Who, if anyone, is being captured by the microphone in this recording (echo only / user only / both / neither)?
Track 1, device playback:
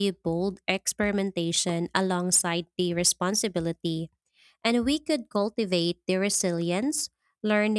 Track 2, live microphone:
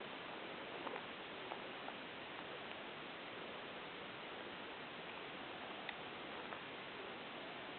neither